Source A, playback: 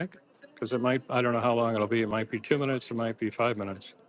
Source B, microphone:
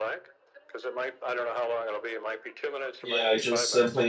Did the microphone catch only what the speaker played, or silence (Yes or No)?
No